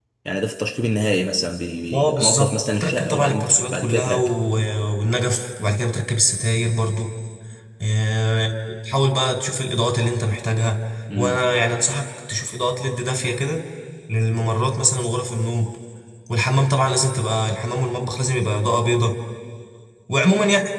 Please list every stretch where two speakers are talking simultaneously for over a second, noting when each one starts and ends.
1.9-4.2

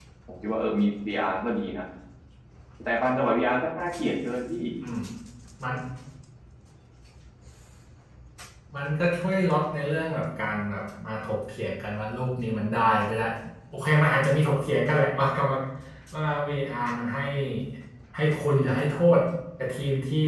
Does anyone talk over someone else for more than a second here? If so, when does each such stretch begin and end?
none

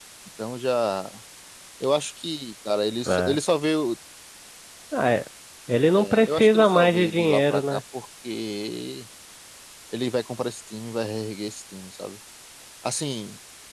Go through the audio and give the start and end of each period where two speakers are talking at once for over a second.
6.0-7.8

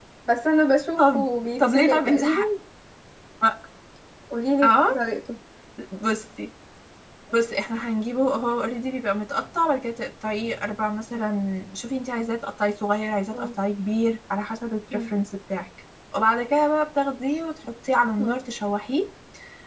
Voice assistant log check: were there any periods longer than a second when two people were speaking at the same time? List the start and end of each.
1.0-2.4

